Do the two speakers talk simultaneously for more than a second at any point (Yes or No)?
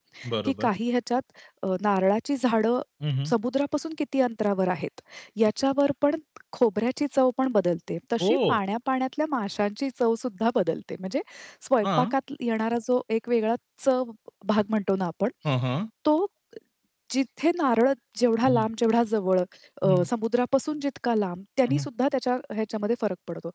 No